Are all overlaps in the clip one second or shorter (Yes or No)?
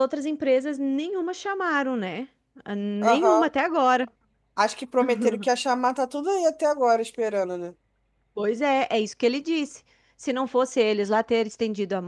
Yes